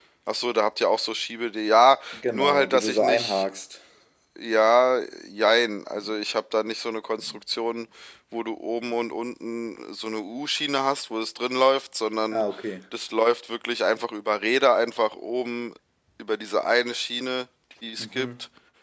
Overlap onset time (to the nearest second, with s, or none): 2 s